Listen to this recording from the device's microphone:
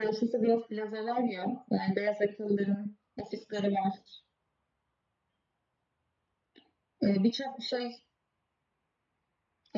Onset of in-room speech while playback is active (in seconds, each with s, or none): none